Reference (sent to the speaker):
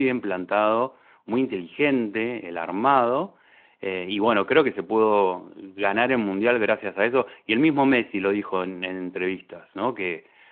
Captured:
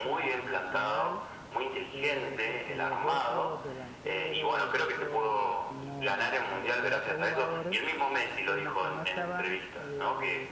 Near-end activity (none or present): present